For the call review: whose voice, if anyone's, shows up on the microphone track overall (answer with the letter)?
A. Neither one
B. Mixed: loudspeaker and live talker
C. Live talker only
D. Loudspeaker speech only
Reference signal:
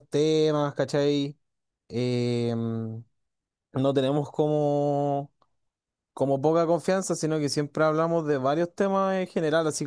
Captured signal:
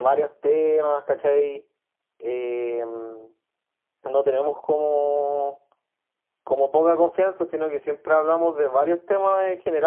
D